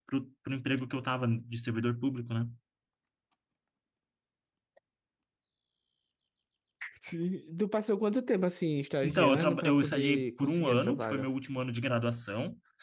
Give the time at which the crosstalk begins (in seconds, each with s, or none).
9.0 s